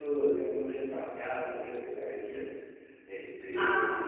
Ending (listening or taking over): listening